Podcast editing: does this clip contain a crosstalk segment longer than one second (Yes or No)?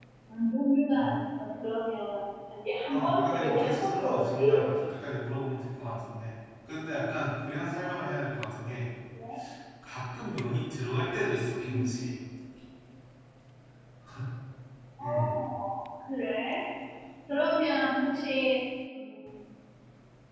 Yes